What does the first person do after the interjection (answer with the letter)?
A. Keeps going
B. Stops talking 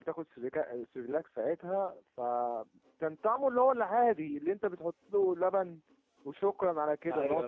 A